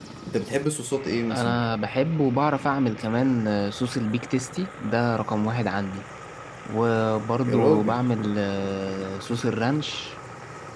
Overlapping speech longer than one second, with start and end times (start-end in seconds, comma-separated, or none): none